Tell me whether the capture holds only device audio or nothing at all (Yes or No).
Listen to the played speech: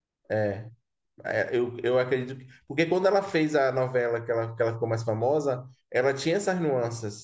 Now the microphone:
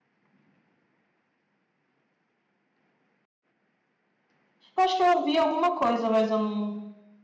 No